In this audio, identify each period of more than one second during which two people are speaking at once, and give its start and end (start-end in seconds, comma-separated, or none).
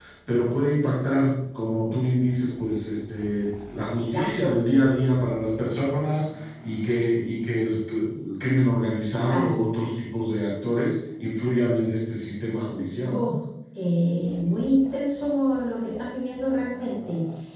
none